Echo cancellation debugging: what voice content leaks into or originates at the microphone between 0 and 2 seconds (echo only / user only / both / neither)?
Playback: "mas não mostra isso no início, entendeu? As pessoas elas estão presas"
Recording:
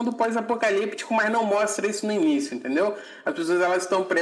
echo only